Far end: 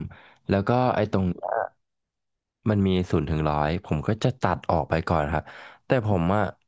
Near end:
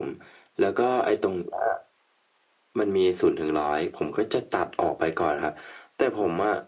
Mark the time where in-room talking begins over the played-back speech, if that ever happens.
none

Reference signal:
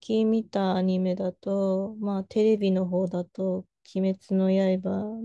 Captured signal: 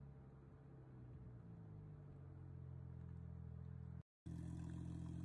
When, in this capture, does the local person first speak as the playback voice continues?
none

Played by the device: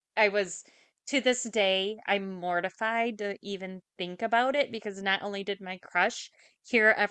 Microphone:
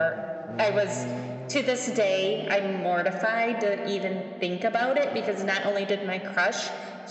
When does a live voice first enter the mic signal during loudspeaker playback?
none

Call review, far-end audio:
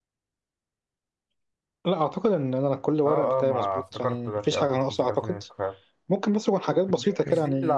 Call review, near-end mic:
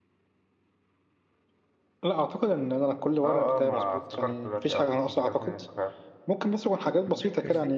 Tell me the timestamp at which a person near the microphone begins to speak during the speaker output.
none

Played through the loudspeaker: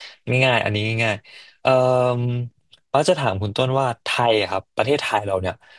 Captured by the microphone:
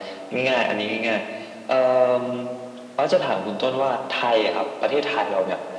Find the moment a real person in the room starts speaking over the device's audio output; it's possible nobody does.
none

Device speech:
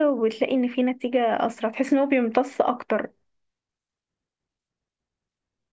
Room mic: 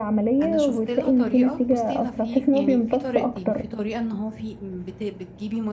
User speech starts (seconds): 0.4 s

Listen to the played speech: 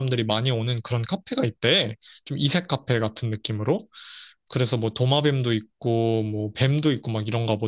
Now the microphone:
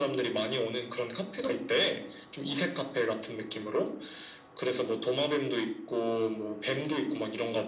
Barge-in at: none

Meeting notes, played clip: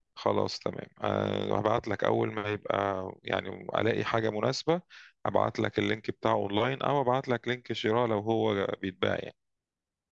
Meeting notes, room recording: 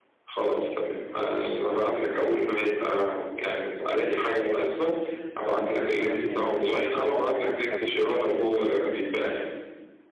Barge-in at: 5.6 s

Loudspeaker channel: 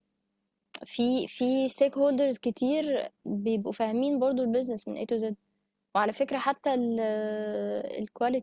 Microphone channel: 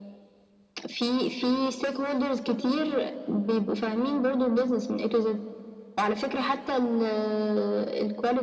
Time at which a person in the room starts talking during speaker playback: none

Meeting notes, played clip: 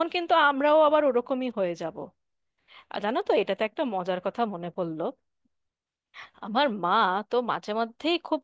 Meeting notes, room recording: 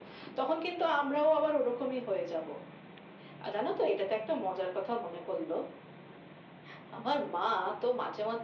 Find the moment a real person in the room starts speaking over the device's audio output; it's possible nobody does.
none

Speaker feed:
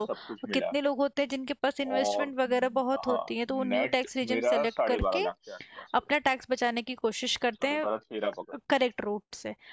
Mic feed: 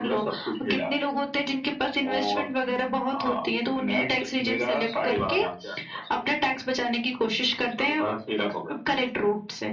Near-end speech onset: none

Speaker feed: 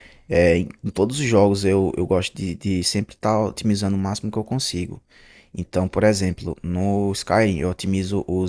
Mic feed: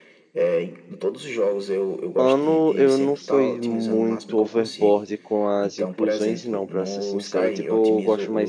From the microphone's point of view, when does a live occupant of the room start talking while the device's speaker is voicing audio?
2.2 s

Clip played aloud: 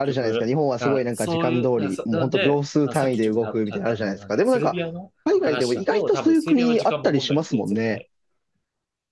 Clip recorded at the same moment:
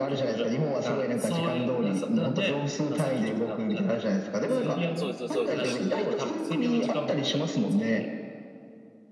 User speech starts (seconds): 4.4 s

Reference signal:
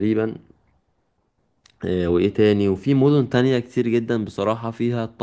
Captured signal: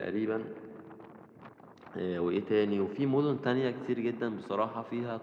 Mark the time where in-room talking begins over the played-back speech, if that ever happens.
none

